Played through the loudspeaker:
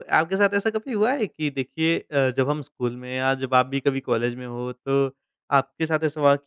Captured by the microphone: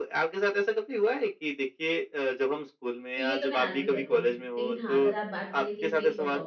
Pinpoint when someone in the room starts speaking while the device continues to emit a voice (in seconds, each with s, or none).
3.1 s